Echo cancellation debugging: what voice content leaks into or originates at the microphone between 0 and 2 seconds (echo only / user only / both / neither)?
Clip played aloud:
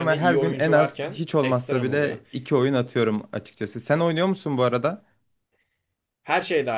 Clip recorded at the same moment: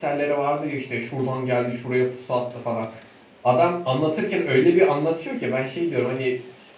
user only